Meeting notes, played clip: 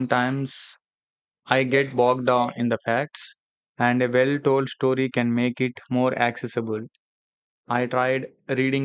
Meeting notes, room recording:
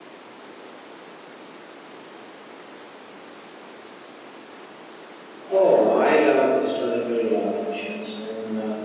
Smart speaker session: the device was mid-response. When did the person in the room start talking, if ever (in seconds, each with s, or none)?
5.5 s